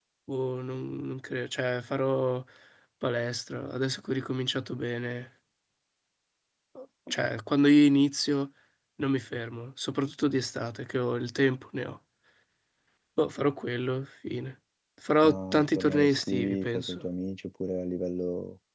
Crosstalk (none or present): present